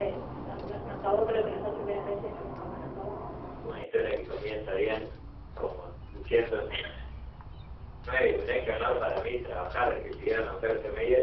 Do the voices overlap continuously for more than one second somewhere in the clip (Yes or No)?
No